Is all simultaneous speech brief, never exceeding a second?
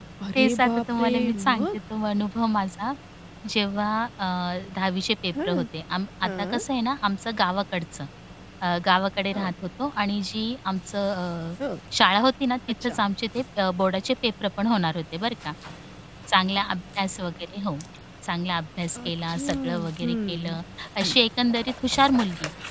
No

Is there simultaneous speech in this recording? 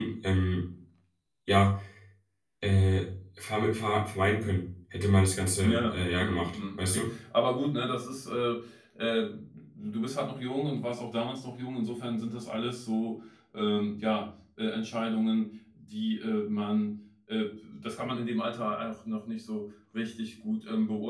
Yes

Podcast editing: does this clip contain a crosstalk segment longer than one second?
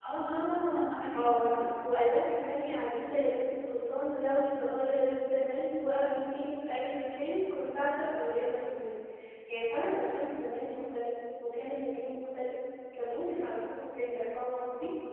No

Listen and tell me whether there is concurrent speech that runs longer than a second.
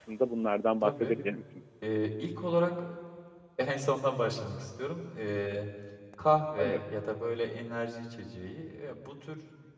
No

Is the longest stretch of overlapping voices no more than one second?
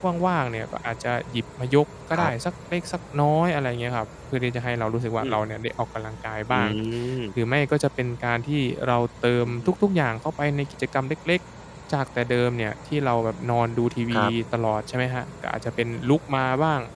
Yes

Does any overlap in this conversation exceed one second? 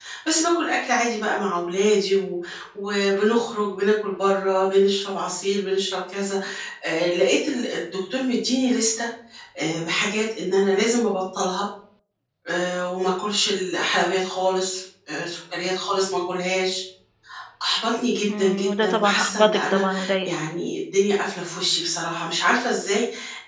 Yes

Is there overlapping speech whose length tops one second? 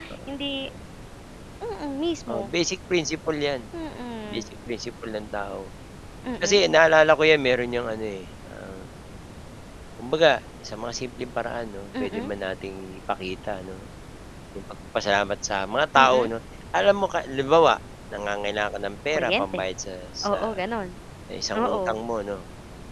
No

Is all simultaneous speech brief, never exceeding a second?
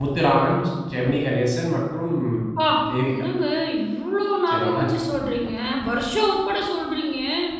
Yes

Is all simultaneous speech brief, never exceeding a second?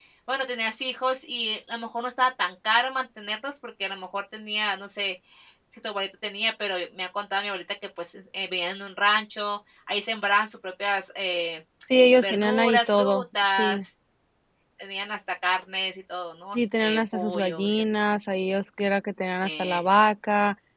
No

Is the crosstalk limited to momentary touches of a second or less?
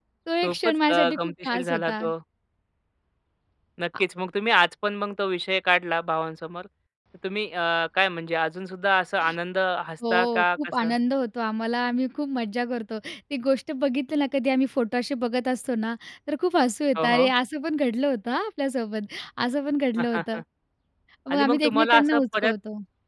No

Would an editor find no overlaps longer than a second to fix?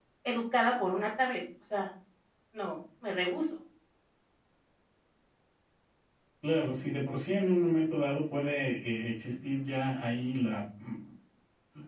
Yes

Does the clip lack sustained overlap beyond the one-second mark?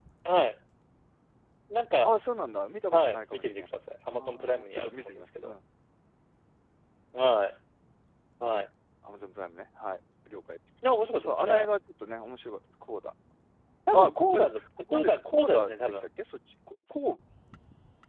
No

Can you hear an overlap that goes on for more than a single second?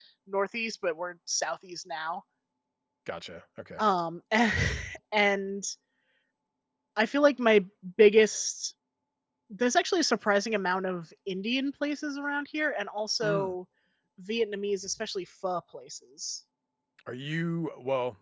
No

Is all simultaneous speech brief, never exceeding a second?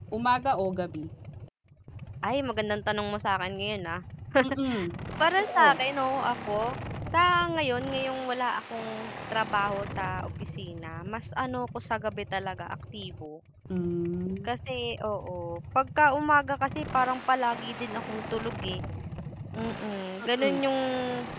Yes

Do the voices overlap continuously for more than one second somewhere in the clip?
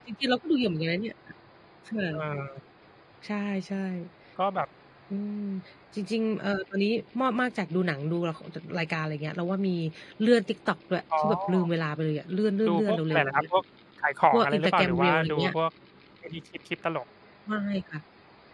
Yes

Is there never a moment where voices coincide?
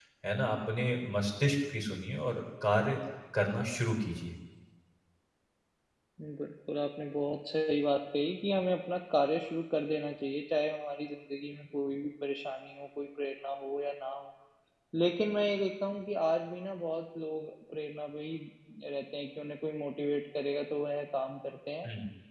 Yes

